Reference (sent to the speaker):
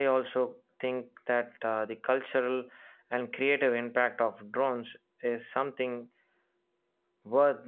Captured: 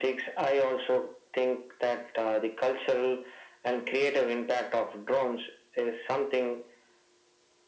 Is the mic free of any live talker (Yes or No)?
Yes